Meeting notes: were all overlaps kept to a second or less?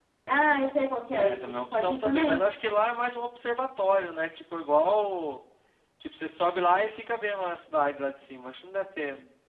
No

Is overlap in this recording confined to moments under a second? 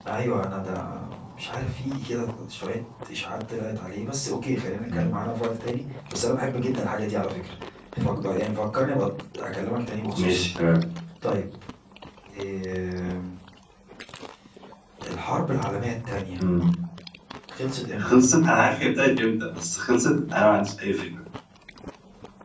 Yes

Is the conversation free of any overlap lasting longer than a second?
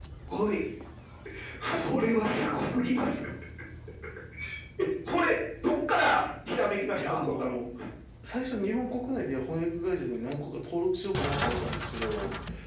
Yes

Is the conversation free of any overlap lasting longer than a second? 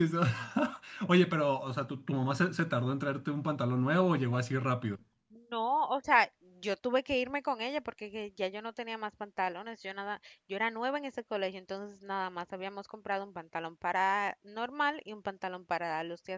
Yes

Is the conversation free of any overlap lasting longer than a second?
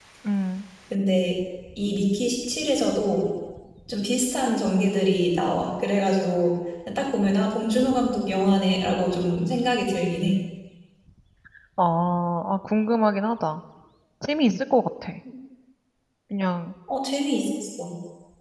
Yes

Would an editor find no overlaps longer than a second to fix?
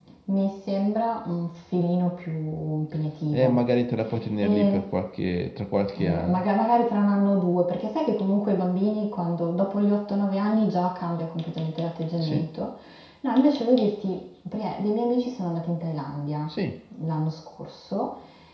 Yes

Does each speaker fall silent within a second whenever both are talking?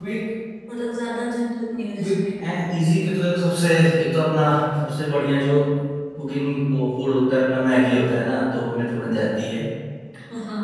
Yes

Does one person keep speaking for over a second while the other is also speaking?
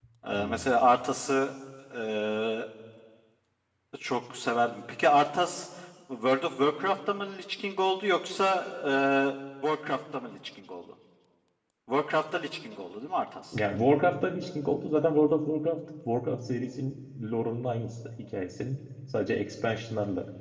No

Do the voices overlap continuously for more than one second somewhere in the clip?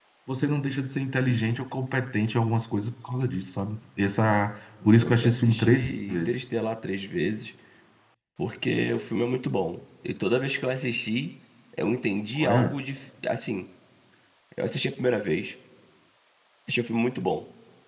Yes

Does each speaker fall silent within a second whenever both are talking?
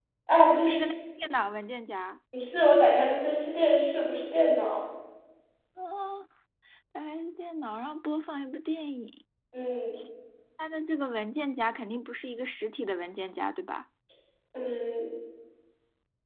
Yes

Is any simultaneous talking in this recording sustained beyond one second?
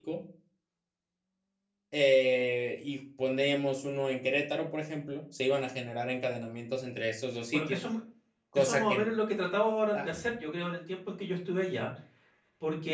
No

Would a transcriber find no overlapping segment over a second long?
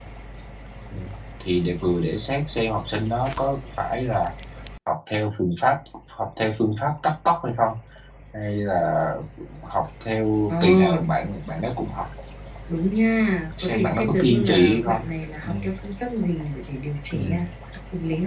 No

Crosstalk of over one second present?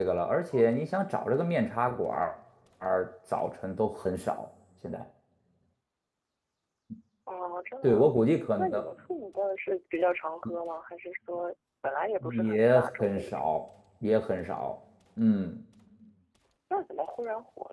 Yes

